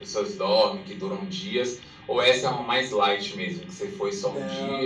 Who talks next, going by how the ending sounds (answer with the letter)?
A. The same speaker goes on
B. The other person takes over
B